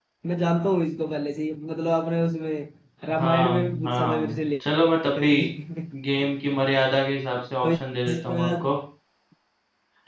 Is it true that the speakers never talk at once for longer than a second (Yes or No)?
No